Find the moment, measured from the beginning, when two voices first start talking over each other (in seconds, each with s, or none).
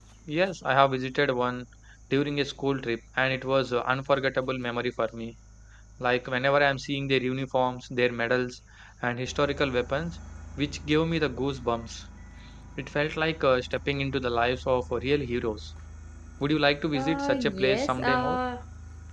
16.9 s